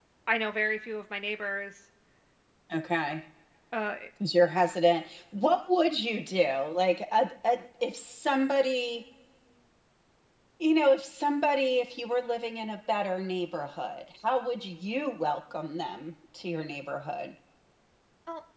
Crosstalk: none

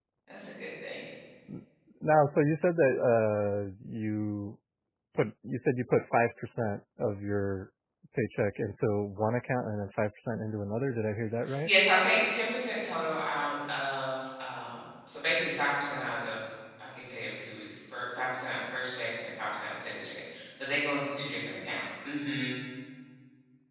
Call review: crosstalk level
none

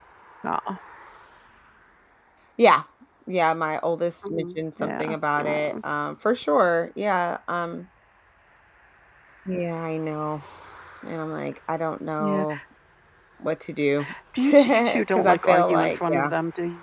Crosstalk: present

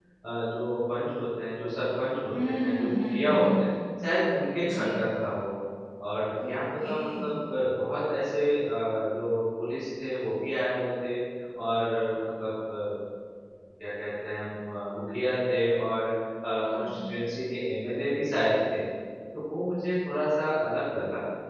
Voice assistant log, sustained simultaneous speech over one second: present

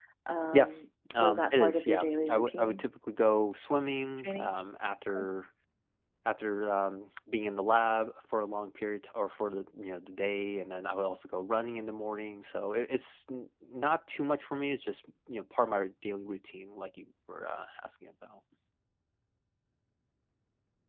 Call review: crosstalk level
present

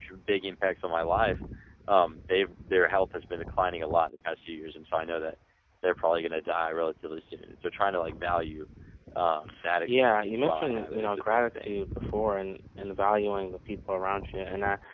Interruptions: present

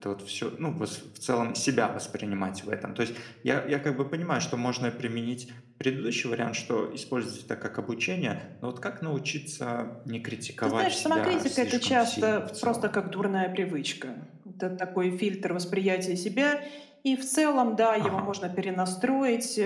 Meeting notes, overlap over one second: present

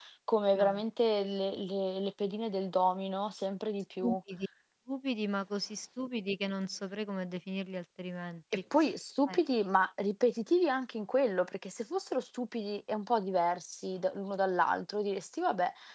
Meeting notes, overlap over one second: none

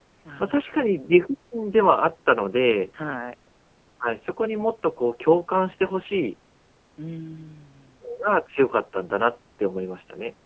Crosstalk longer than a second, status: none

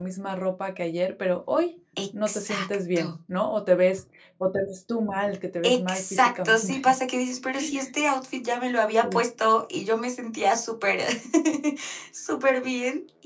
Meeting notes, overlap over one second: present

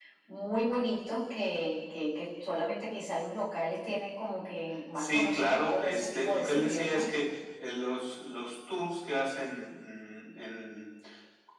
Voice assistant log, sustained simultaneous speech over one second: present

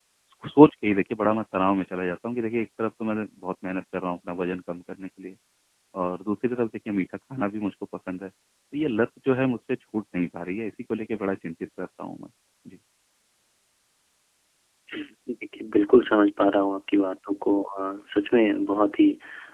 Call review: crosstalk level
none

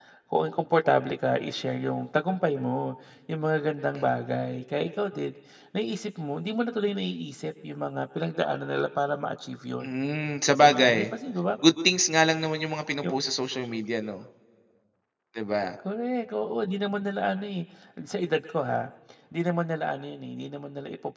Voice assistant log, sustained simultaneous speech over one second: none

